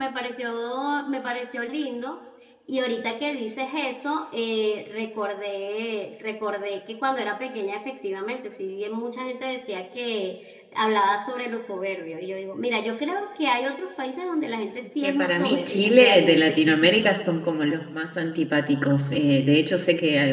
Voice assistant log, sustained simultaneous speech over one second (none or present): present